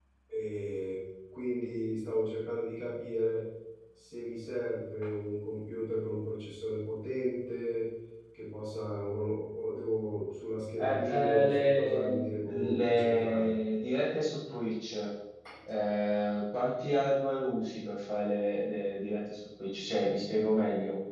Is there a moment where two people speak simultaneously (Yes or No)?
Yes